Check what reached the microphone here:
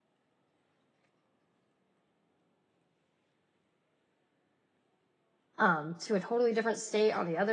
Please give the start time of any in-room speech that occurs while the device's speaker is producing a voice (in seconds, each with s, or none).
5.6 s